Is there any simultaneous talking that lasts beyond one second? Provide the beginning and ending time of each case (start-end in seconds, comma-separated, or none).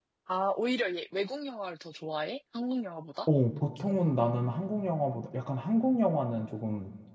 none